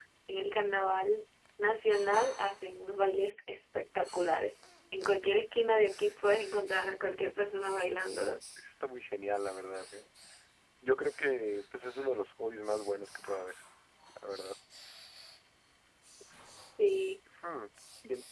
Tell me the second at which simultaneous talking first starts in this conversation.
none

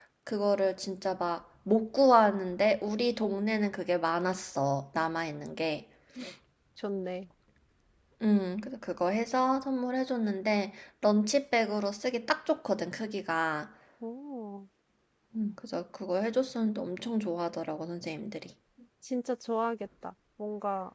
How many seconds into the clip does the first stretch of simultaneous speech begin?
none

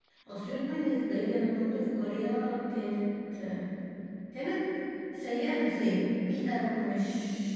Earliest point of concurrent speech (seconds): none

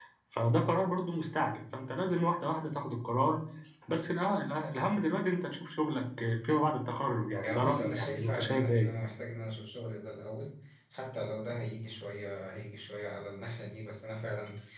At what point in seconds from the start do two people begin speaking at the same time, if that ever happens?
7.4 s

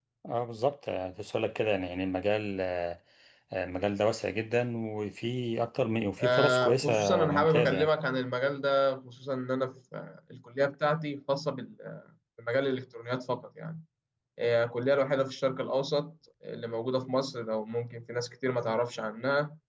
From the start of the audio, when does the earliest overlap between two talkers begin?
6.2 s

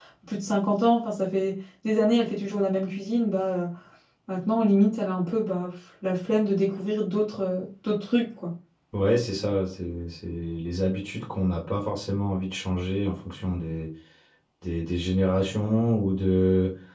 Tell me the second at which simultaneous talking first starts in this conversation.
none

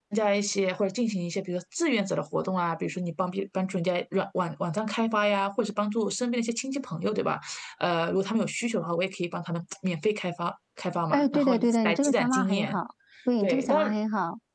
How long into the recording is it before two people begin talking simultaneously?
11.1 s

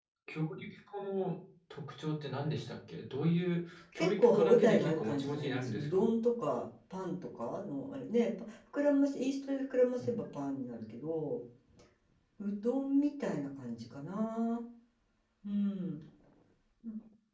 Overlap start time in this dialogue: 3.9 s

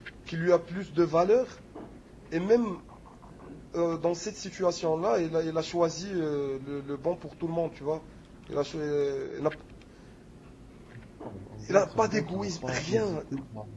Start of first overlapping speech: 11.7 s

